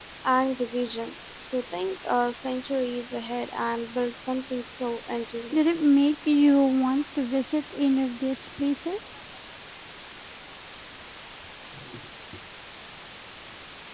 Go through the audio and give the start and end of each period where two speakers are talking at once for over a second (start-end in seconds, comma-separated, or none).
none